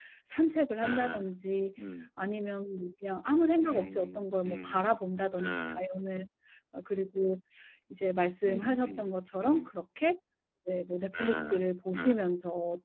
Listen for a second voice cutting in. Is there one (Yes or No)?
Yes